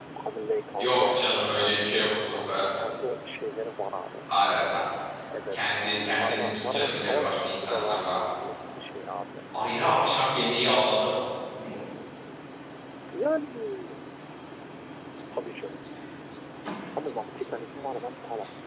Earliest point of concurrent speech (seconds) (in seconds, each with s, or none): 0.8 s